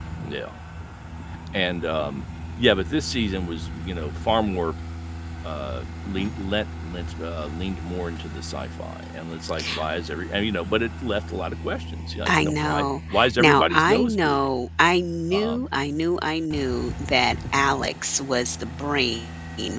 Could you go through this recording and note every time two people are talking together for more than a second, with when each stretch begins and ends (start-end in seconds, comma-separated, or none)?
12.3-14.5